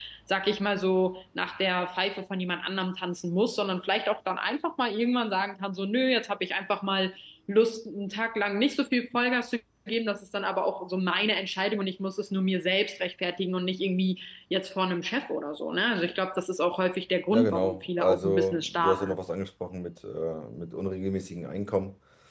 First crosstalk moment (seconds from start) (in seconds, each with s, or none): 17.3 s